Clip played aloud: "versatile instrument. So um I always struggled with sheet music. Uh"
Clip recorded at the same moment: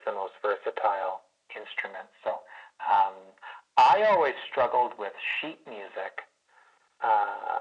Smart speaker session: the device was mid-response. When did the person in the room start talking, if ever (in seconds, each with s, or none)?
none